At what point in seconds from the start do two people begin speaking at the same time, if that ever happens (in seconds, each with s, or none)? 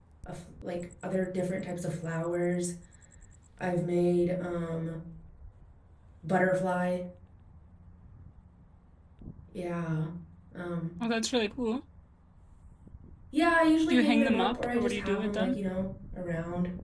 13.9 s